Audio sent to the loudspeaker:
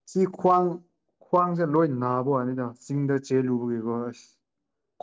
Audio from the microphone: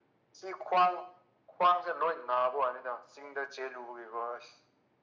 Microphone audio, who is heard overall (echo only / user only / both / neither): echo only